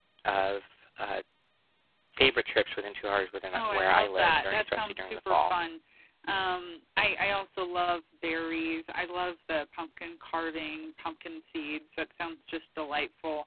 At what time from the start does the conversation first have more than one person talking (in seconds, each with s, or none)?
3.5 s